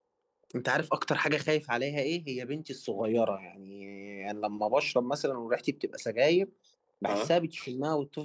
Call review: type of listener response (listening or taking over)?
listening